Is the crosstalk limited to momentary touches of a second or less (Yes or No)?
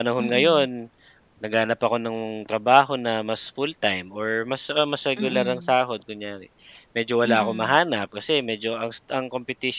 Yes